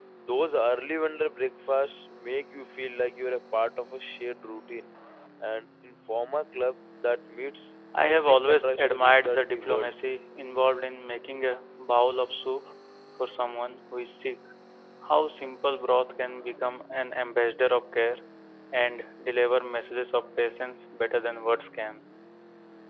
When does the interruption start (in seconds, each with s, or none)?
7.9 s